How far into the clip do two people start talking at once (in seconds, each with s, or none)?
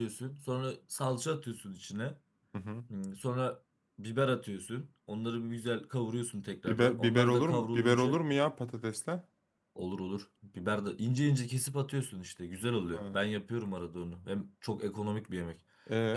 6.7 s